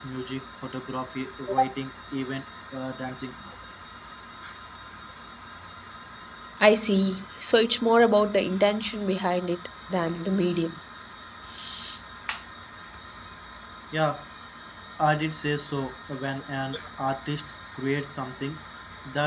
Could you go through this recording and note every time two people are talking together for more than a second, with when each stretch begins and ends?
none

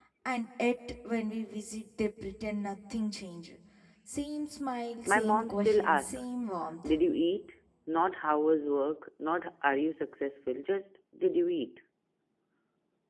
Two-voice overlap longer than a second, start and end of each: 5.1-6.3

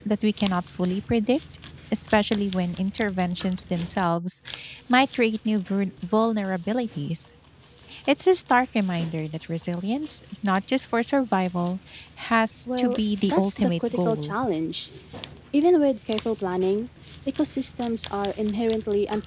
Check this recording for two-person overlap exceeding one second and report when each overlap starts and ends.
12.8-14.3

